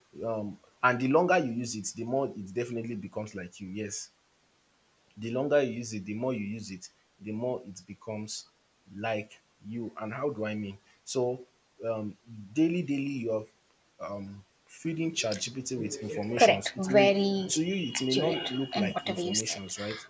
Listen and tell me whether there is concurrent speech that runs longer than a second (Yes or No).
Yes